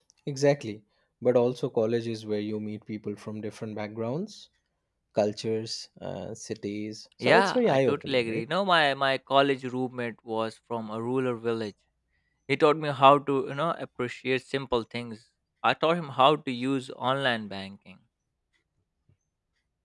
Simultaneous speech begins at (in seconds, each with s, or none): 7.2 s